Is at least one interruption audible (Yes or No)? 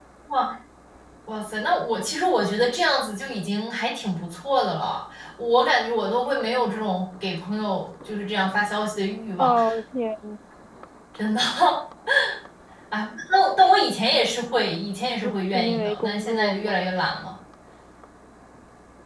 Yes